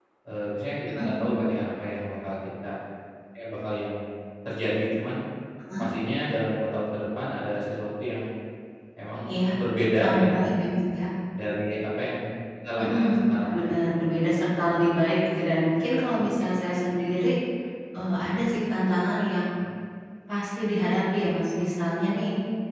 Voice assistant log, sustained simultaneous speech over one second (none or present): present